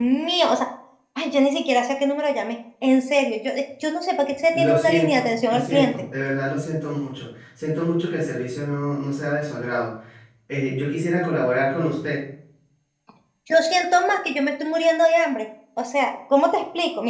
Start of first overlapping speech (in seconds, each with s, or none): 4.5 s